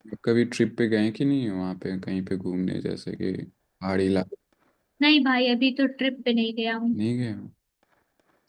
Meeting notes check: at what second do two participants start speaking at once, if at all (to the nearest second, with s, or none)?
none